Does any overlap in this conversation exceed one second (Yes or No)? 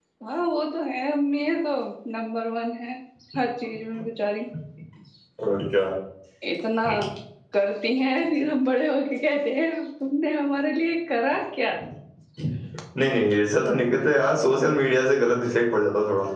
No